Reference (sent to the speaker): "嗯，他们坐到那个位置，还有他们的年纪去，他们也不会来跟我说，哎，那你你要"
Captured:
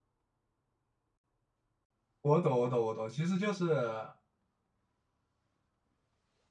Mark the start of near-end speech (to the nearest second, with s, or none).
2 s